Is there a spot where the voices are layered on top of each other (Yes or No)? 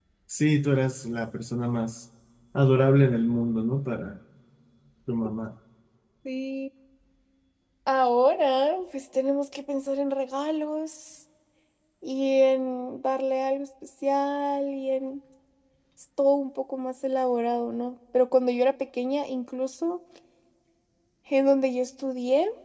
No